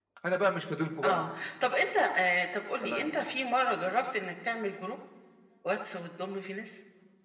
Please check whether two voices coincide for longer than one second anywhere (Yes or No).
No